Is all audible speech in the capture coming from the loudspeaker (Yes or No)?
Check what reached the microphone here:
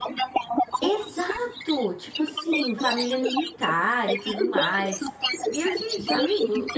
No